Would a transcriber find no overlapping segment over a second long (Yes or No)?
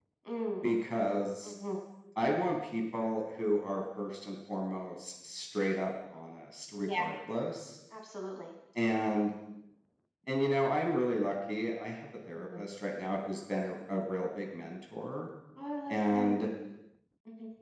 Yes